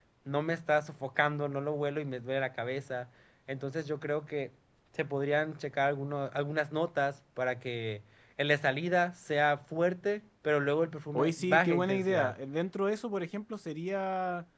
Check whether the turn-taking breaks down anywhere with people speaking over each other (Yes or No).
Yes